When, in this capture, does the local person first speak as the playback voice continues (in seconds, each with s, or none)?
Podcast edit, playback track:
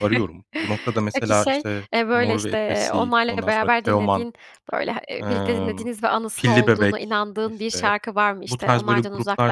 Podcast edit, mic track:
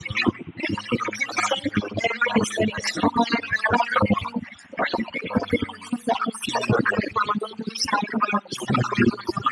none